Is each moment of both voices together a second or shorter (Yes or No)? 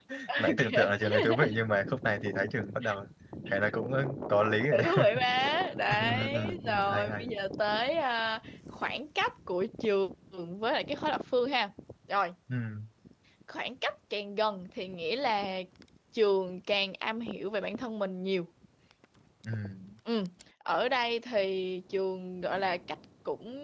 No